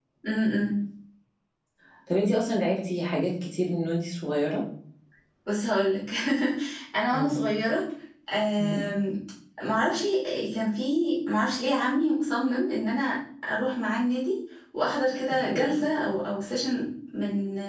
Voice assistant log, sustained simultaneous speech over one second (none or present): none